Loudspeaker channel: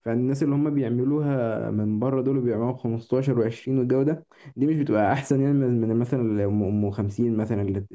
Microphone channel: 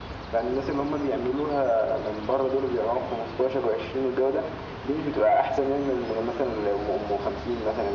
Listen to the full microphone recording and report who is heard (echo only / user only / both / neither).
echo only